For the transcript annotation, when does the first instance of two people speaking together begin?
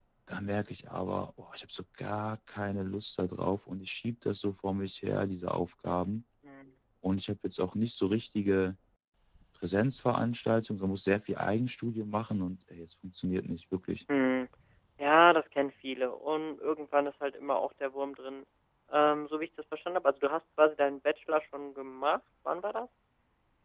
none

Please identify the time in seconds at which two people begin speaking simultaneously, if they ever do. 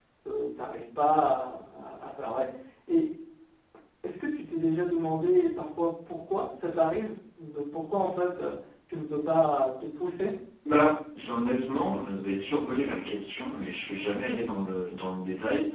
none

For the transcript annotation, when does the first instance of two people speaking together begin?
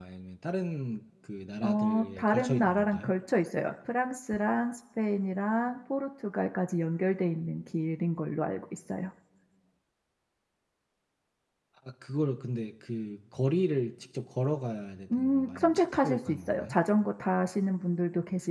2 s

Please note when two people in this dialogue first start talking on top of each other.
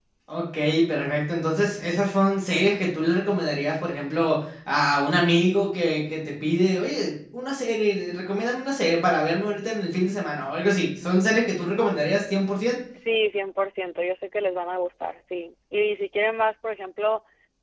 none

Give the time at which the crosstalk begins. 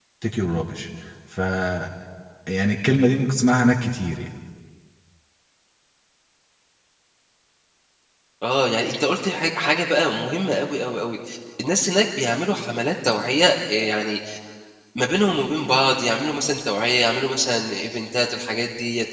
none

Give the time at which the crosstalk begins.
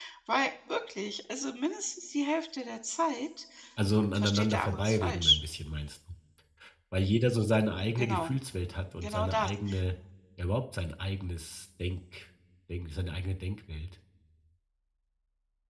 4 s

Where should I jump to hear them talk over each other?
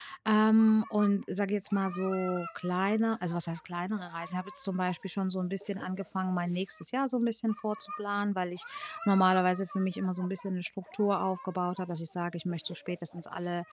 none

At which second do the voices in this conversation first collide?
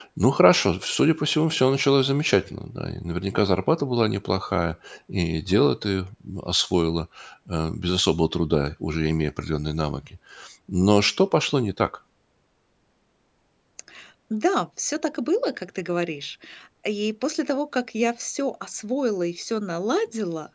none

